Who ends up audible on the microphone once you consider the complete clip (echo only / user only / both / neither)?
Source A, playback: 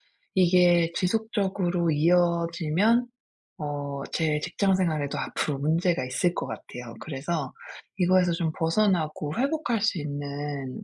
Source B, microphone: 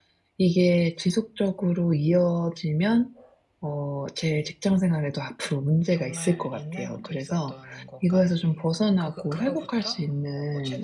both